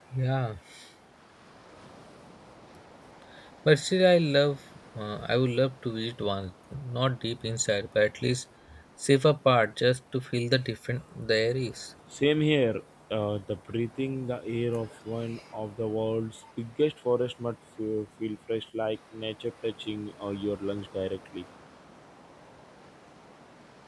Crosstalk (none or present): none